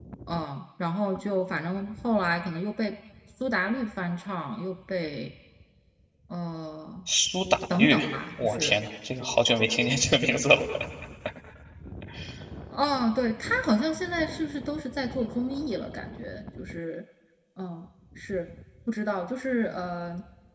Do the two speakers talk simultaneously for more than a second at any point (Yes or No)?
No